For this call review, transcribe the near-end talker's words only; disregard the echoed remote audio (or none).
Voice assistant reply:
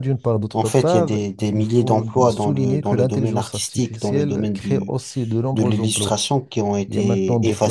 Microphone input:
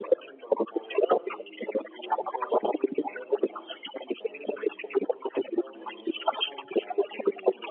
none